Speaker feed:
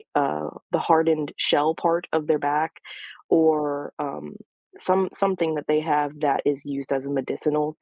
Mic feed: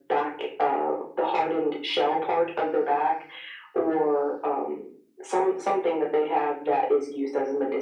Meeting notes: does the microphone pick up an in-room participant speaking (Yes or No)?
No